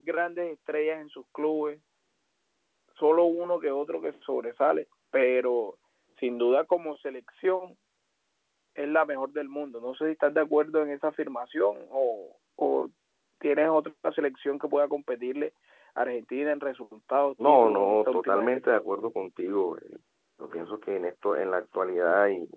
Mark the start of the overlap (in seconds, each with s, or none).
17.4 s